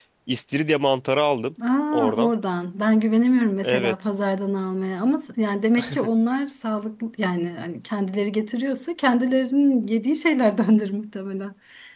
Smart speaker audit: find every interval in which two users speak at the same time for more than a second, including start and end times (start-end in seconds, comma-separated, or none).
none